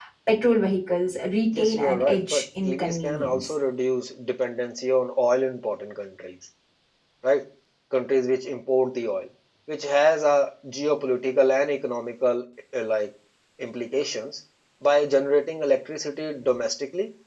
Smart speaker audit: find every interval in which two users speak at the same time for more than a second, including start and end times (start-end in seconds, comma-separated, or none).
1.6-3.5